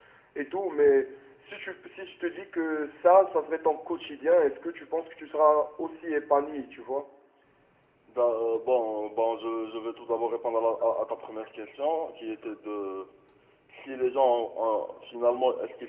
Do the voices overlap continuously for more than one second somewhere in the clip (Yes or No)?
No